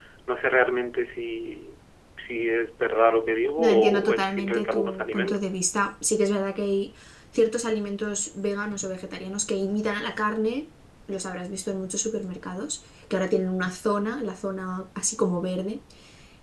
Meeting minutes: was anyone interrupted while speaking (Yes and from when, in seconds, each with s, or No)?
Yes, from 3.6 s